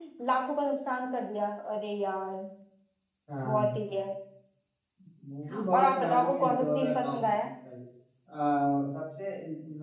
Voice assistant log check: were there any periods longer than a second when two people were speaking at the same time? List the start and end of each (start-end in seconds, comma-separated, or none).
5.7-7.4